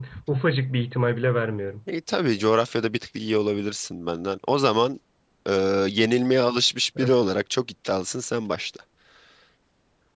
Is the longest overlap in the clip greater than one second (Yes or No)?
No